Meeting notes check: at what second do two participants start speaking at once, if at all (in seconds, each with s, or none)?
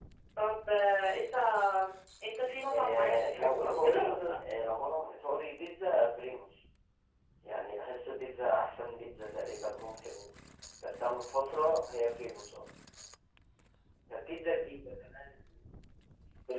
2.7 s